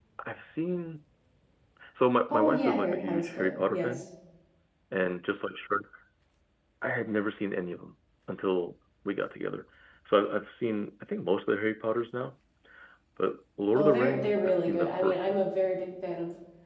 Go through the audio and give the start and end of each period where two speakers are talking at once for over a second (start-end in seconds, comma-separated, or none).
2.3-4.0, 13.8-15.4